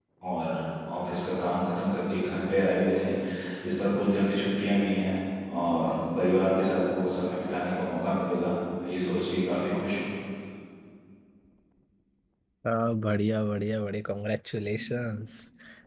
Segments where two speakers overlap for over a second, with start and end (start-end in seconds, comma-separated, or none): none